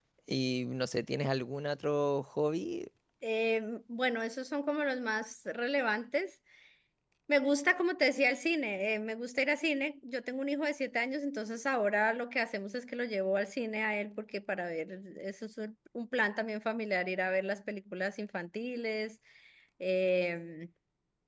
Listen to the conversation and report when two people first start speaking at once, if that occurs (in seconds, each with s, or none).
none